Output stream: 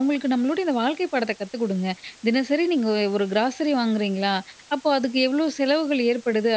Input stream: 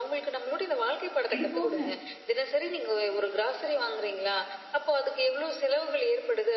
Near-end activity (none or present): present